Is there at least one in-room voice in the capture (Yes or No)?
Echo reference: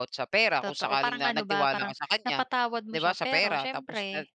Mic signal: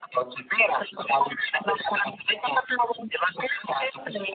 No